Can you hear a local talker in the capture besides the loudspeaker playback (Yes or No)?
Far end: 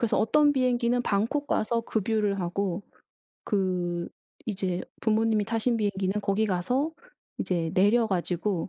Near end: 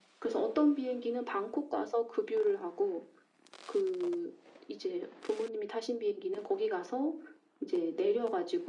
No